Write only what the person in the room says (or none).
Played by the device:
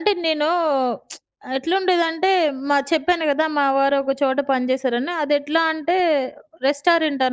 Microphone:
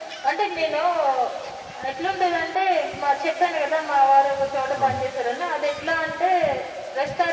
అవునండి.